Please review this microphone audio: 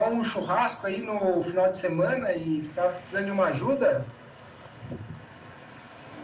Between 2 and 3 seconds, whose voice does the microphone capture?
echo only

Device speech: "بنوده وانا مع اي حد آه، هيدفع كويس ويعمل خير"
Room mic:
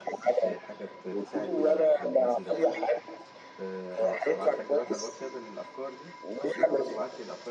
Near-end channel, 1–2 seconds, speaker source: both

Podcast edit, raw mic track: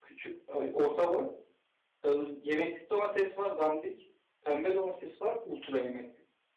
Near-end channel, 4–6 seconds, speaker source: user only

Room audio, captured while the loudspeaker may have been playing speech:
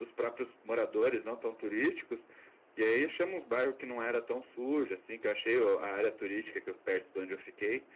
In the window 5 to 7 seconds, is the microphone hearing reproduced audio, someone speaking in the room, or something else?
user only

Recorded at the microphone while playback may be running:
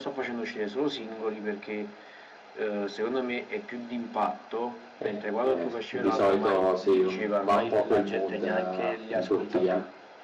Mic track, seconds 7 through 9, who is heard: both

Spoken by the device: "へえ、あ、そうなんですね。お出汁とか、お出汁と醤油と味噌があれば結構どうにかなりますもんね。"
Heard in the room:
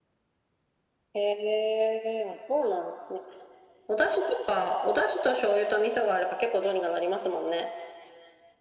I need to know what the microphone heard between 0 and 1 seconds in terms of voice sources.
neither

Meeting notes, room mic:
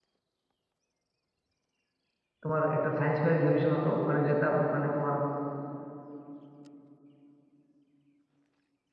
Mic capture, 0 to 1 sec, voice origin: neither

